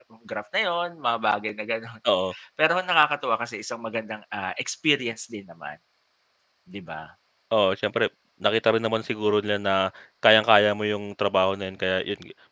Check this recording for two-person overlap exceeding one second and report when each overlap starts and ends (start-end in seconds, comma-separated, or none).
none